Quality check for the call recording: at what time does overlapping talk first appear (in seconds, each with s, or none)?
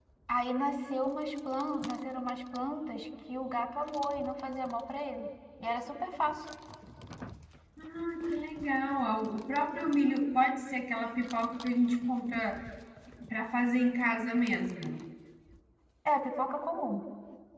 none